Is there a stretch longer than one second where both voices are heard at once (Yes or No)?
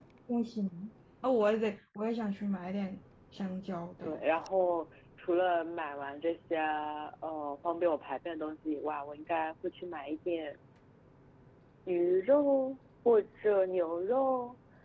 No